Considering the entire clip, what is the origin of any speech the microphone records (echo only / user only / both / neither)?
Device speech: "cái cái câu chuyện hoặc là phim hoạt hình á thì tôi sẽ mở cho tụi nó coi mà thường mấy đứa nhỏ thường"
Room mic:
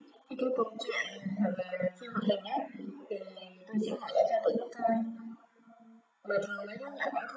echo only